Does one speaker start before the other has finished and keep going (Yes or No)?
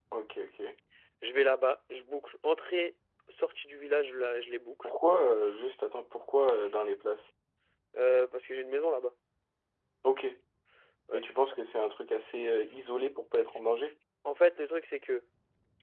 No